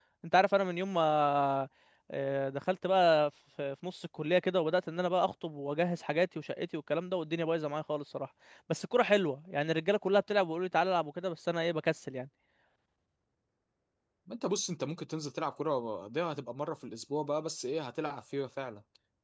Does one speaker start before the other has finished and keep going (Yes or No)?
No